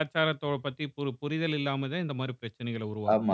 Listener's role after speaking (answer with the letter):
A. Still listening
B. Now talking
B